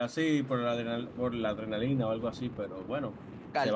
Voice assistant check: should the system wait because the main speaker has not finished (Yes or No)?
No